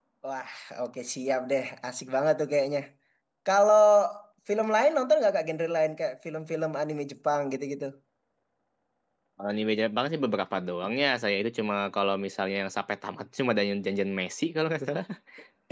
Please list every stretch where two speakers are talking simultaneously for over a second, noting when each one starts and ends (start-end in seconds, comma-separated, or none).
none